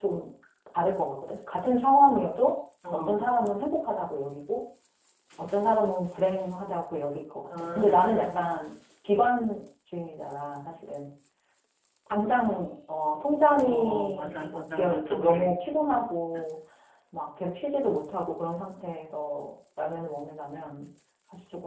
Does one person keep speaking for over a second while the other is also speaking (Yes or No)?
Yes